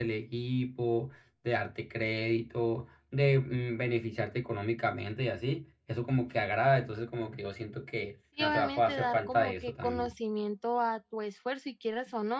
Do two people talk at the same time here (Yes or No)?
Yes